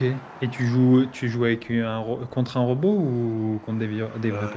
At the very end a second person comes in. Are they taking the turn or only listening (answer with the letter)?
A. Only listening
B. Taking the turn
B